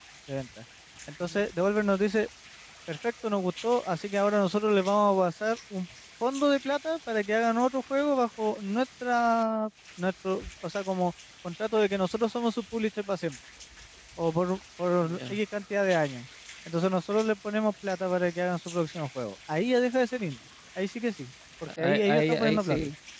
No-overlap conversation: No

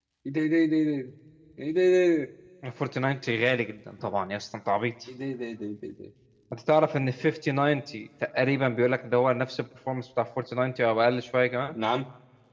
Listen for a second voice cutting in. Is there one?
No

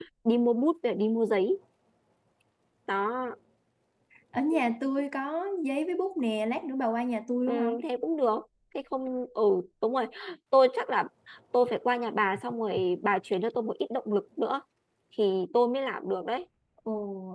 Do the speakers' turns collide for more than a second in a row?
No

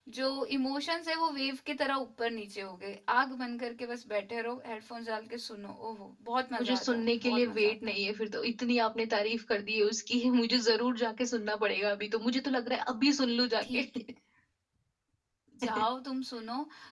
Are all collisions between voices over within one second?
No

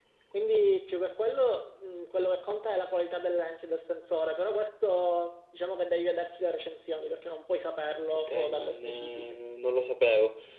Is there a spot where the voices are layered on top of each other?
Yes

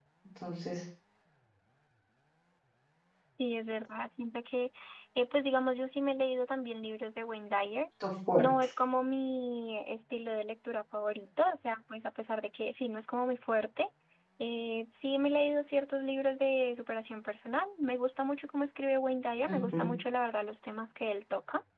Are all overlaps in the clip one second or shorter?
Yes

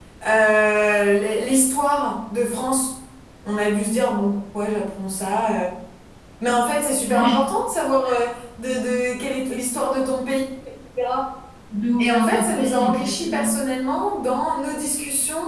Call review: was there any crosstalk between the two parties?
Yes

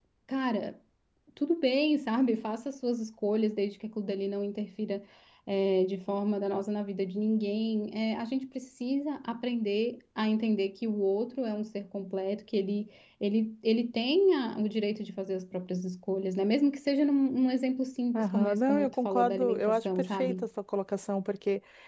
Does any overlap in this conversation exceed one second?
Yes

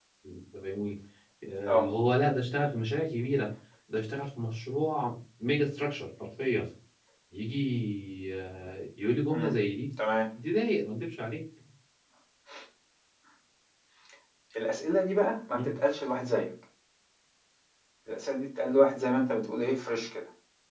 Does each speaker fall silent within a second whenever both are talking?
Yes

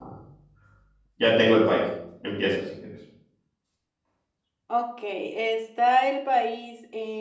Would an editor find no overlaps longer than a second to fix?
Yes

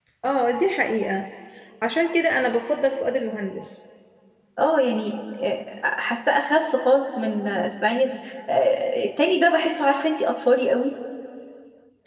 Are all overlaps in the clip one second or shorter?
Yes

